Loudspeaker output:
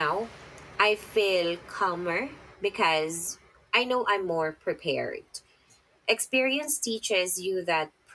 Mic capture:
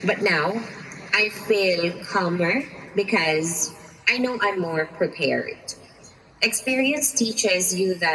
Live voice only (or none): none